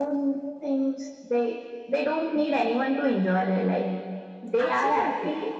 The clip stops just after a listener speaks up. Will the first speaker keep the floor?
Yes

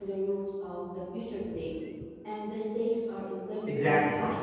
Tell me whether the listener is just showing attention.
No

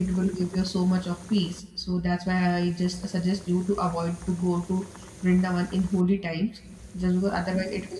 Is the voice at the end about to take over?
No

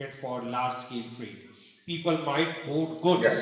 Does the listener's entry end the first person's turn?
No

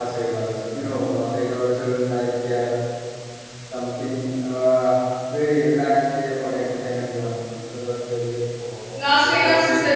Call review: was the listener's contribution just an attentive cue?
No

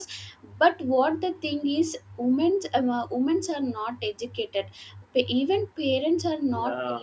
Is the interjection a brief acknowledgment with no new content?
Yes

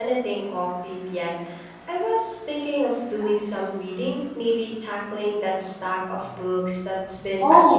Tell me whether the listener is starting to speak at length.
Yes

